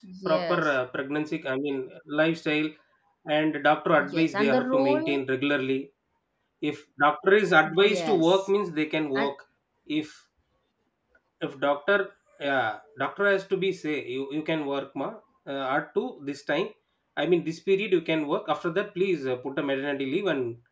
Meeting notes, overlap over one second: present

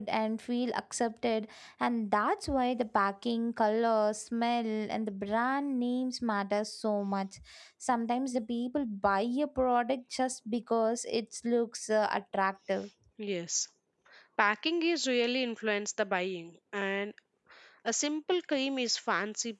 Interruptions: none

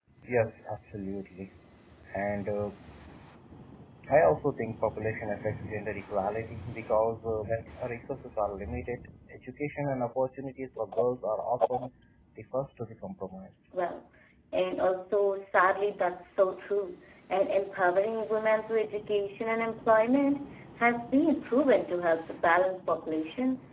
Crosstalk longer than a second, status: none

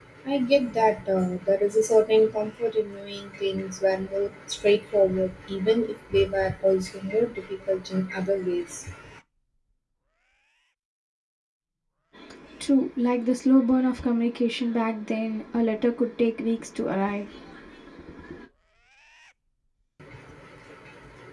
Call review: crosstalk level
none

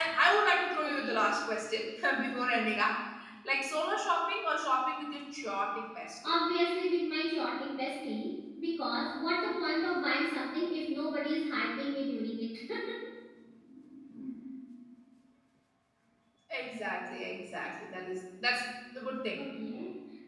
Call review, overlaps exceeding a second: none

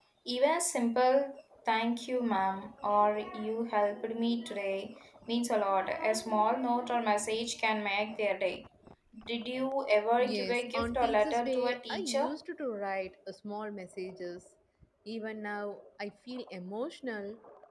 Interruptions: present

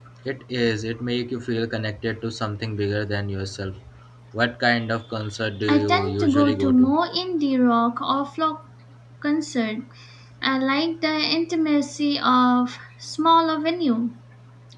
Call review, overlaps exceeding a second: present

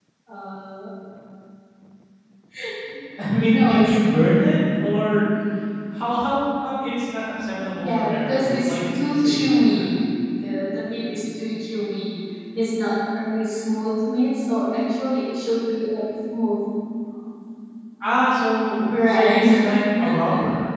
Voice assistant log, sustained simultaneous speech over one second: present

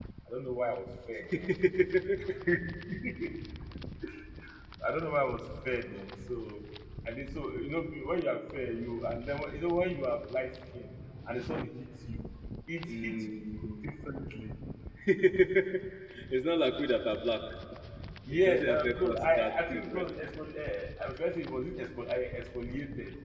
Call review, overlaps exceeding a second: present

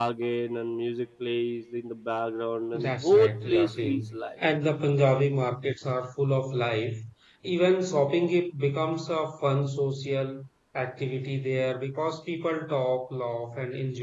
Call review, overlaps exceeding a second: present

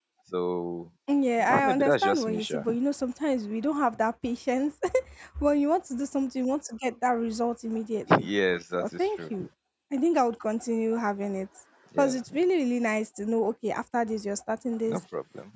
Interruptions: present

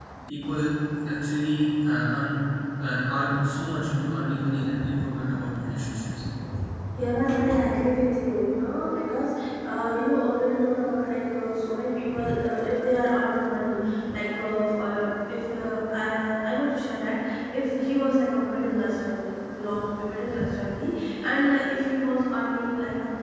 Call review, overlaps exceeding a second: none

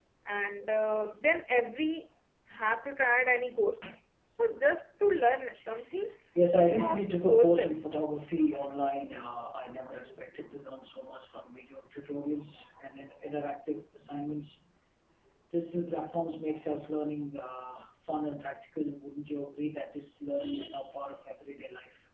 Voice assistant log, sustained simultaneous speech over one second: present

